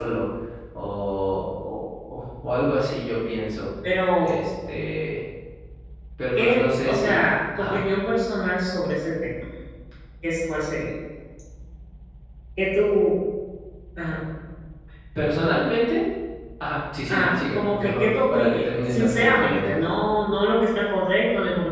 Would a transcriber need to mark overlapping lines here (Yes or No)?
Yes